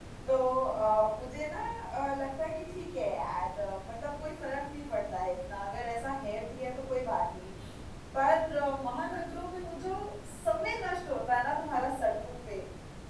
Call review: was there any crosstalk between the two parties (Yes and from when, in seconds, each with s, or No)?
No